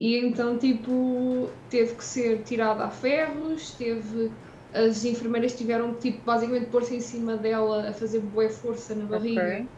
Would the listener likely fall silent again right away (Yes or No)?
Yes